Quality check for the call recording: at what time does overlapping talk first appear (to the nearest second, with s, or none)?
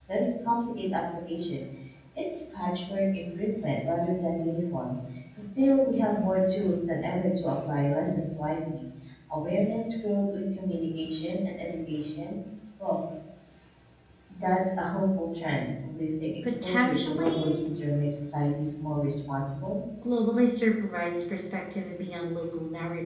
16 s